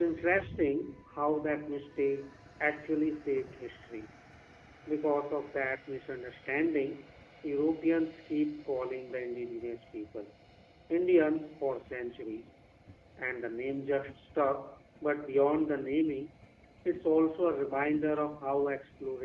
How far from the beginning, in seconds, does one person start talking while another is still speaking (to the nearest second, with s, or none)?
none